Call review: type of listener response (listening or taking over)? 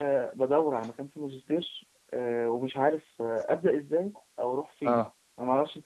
listening